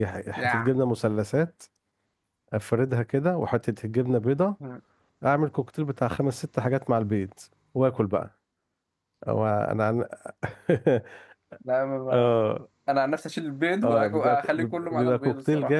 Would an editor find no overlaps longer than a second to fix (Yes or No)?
No